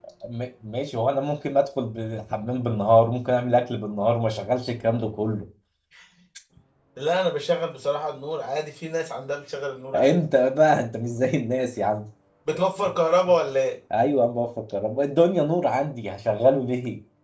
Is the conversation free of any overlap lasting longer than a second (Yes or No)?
Yes